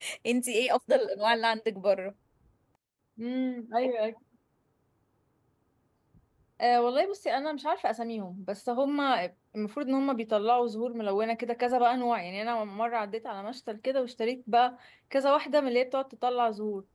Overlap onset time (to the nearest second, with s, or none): none